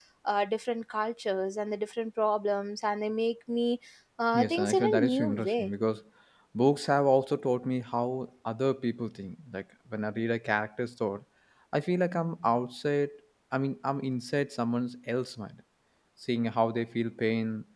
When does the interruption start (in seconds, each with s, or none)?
4.3 s